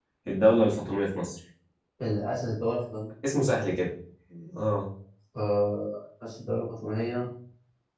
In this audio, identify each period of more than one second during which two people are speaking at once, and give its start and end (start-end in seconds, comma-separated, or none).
none